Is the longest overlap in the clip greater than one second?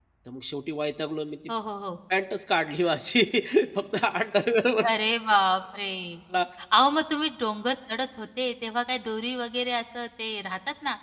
No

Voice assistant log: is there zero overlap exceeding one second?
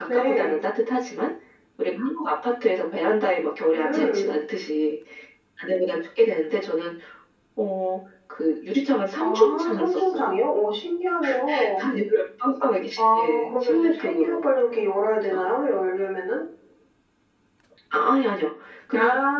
No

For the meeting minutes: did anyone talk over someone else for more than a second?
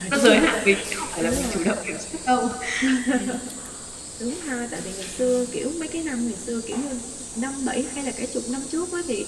No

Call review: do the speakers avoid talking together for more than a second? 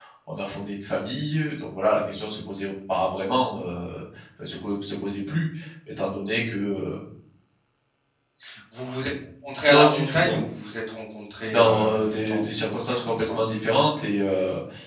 No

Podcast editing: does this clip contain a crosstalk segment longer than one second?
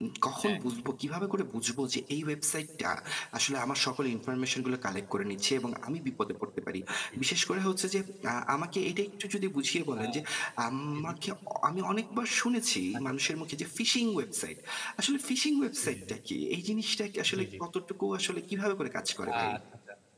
No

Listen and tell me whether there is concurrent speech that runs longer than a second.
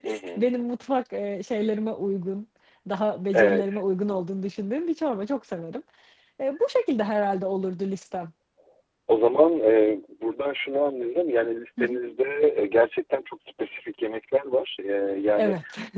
No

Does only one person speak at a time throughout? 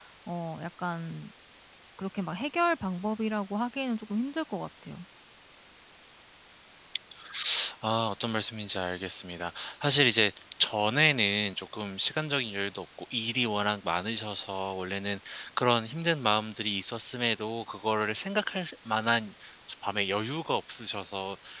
Yes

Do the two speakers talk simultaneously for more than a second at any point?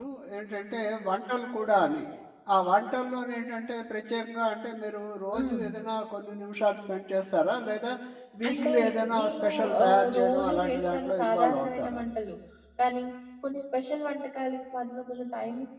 Yes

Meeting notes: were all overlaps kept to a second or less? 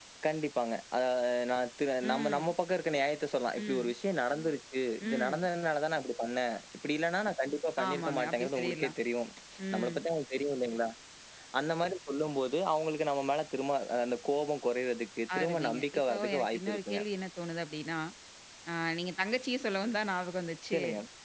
No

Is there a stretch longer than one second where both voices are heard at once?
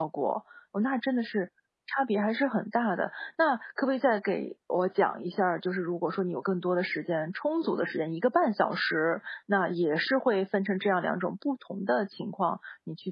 No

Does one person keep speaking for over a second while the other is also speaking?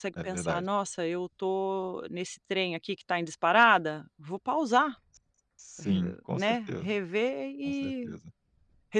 No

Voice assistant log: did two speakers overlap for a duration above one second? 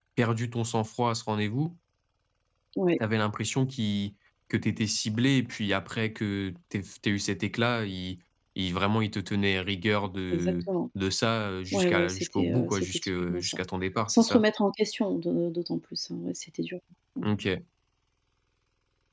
Yes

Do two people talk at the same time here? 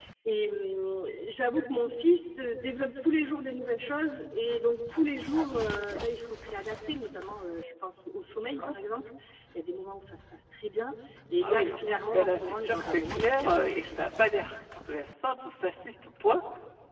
Yes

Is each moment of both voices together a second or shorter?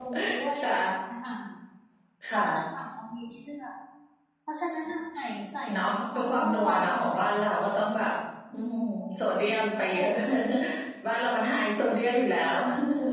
No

